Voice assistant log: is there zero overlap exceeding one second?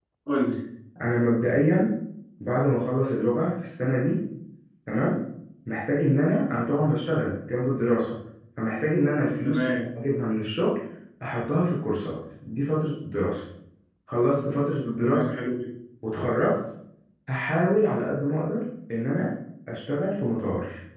Yes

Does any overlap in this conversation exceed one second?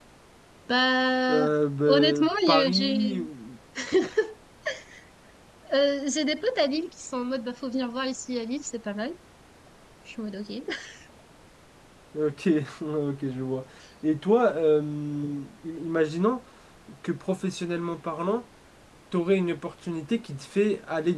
Yes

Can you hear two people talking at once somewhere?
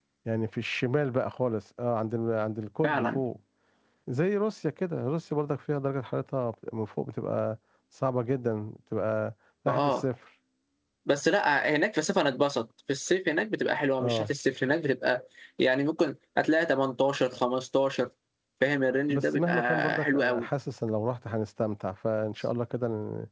Yes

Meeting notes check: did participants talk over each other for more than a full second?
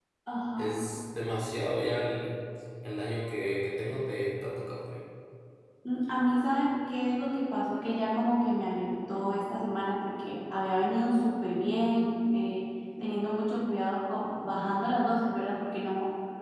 No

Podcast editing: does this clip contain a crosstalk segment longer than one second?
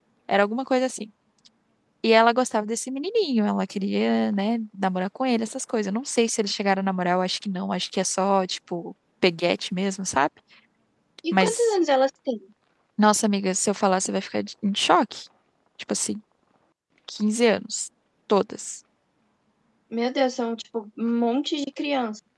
No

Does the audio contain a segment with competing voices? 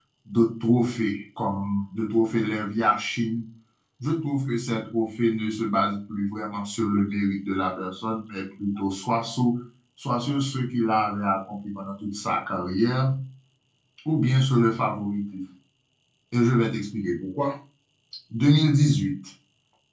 No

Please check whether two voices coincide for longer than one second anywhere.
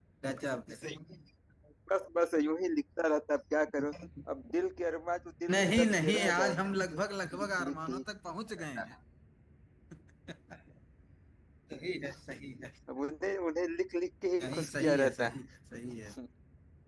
Yes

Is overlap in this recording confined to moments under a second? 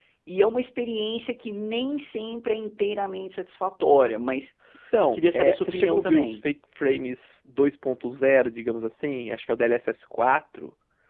No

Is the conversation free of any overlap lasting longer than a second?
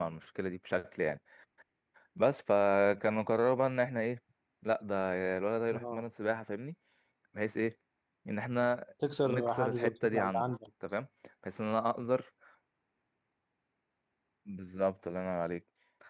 No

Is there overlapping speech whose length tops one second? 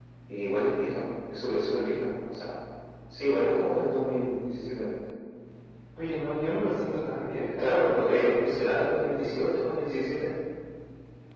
Yes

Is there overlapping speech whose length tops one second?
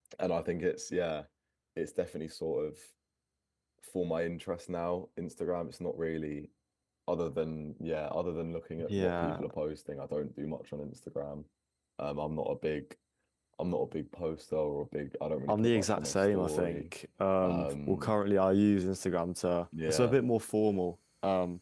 Yes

